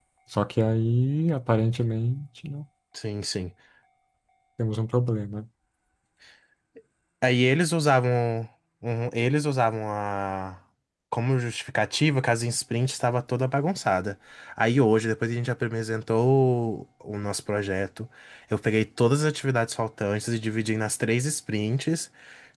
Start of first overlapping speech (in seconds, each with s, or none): none